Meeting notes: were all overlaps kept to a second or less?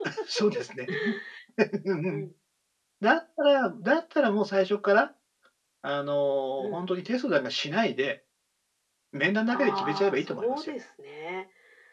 No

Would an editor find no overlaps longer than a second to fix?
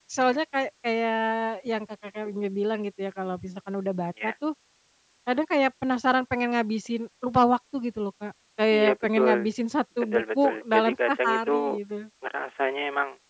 No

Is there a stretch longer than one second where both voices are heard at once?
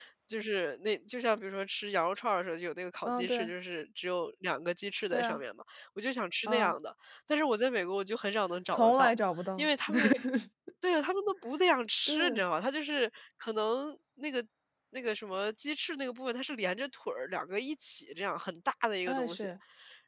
No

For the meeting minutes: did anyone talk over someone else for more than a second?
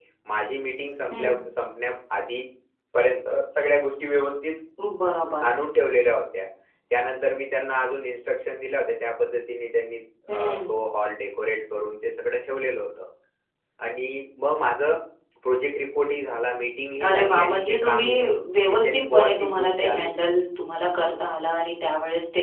Yes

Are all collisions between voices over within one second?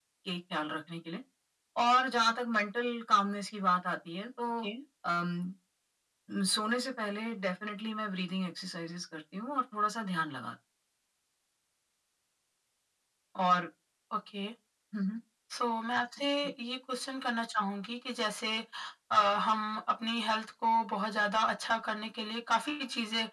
Yes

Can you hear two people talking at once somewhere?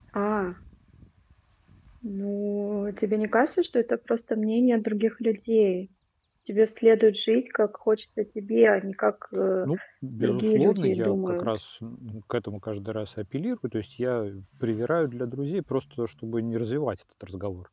Yes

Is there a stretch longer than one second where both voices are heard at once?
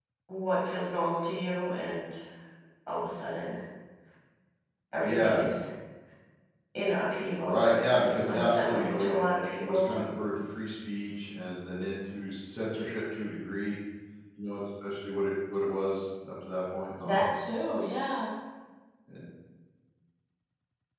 Yes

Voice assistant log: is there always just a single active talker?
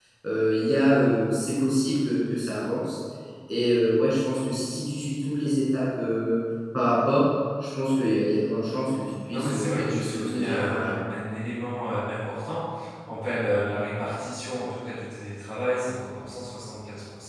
No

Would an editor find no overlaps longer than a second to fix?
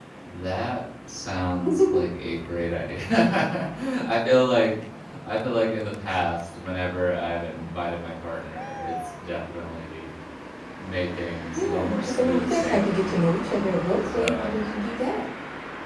No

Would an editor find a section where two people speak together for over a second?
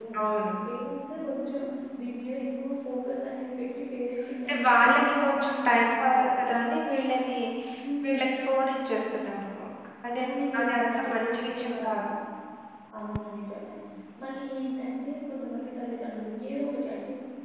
Yes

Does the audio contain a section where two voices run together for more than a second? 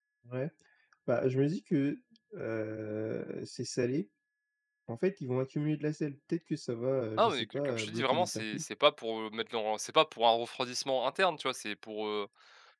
Yes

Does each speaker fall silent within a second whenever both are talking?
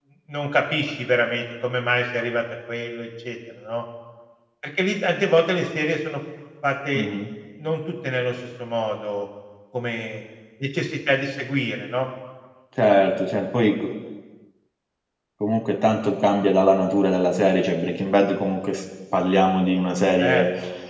Yes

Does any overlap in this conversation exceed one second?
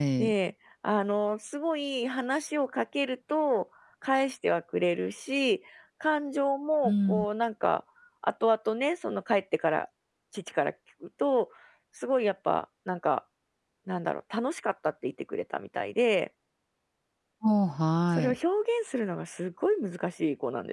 No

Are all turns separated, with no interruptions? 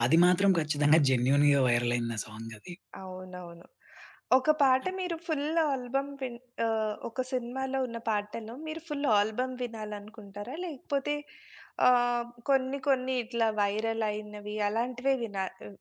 Yes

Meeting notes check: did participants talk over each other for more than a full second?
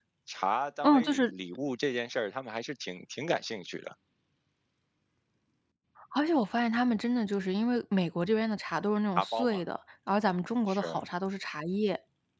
No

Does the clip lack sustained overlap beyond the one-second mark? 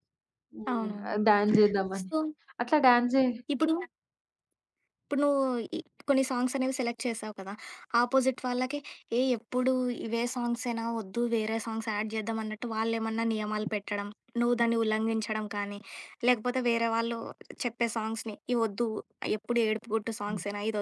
Yes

